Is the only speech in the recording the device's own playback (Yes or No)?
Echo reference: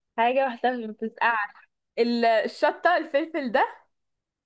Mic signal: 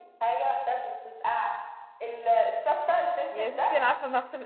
No